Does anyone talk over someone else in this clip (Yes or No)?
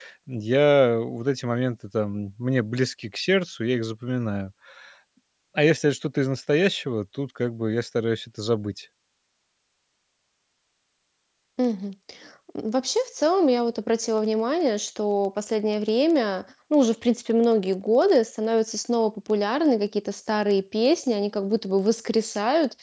No